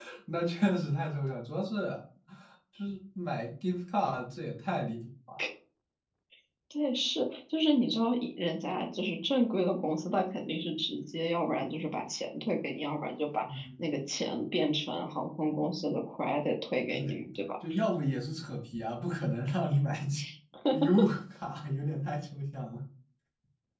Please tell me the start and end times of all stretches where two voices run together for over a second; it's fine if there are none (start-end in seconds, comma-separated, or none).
none